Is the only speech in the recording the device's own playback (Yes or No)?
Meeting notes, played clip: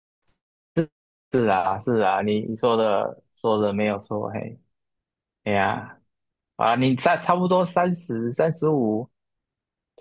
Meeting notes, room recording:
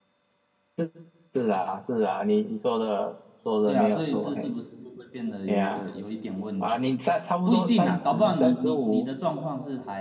No